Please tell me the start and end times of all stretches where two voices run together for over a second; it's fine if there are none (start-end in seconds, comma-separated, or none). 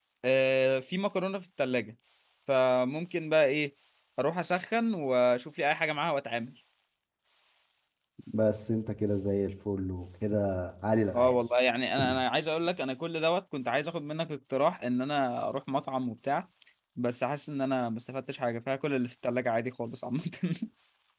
none